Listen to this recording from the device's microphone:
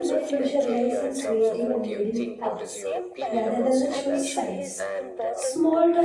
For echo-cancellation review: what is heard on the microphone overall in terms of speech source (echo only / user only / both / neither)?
both